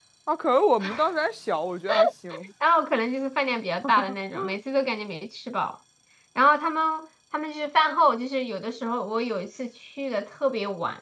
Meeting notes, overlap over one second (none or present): none